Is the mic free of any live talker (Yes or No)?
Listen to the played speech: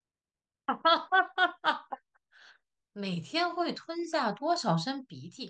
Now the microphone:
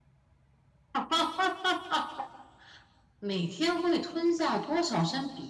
Yes